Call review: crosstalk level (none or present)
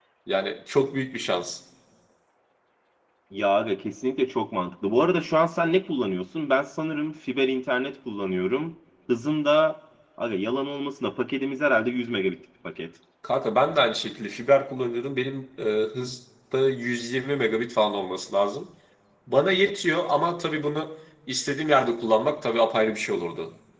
none